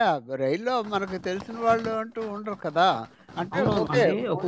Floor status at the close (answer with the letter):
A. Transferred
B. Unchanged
A